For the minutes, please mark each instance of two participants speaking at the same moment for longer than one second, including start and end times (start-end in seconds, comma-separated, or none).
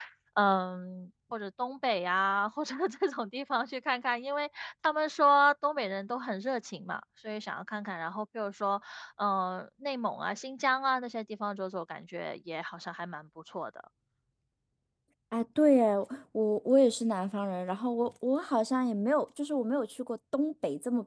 none